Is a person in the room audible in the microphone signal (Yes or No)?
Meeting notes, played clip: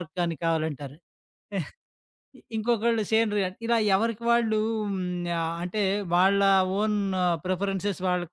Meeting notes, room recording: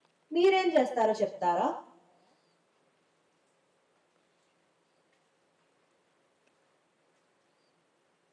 Yes